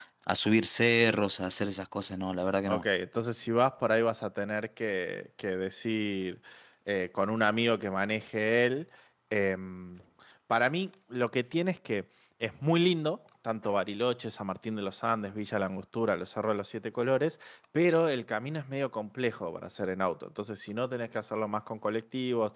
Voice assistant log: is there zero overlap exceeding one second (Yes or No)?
Yes